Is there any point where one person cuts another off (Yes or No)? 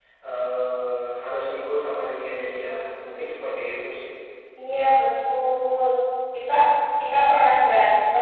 No